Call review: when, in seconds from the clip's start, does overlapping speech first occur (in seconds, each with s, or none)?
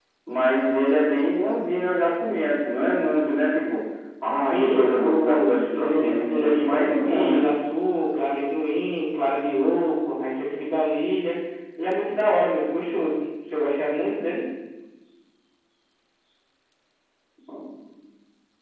4.4 s